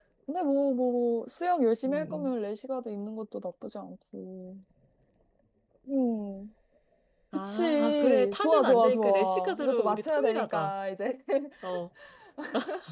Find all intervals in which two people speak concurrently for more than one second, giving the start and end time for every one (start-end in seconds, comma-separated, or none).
7.3-10.7